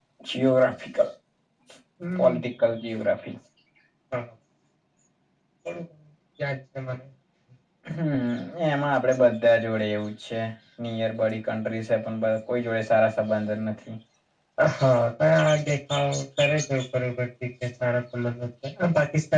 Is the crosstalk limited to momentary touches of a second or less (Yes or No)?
Yes